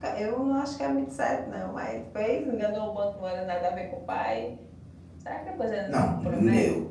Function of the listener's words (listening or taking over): taking over